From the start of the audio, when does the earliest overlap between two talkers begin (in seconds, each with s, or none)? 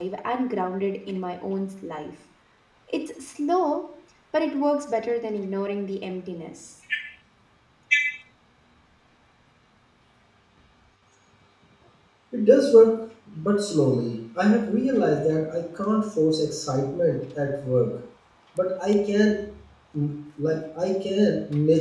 none